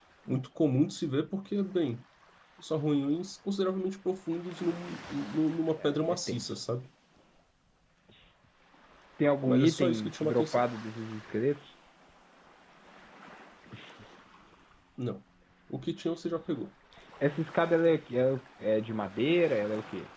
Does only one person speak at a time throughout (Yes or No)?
No